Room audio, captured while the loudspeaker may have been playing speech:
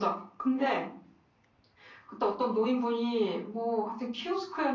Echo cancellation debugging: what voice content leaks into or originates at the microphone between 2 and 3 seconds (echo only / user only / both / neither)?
echo only